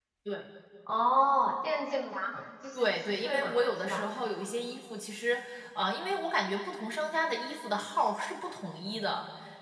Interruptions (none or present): present